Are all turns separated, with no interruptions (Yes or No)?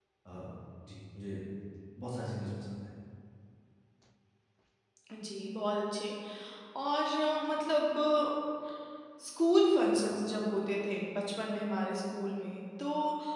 Yes